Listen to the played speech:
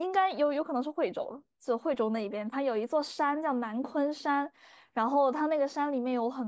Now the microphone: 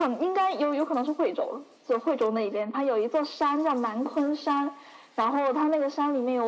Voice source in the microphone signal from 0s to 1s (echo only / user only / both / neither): echo only